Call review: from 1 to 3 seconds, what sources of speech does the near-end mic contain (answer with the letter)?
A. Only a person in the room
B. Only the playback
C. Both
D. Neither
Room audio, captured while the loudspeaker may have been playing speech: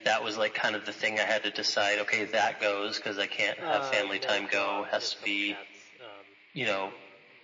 B